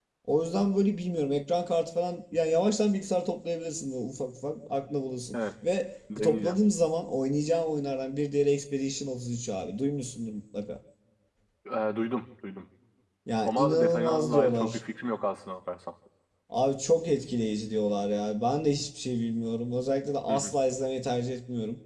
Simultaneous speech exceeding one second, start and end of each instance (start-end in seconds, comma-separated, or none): 13.4-14.8